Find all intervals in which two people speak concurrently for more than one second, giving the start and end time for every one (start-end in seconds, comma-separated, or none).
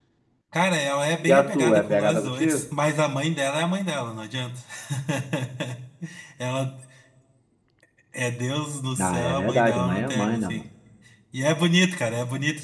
1.3-2.6, 9.0-10.6